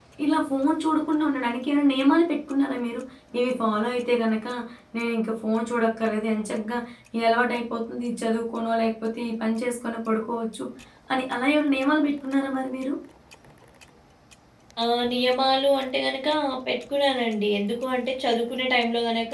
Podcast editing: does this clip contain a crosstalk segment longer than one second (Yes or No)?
No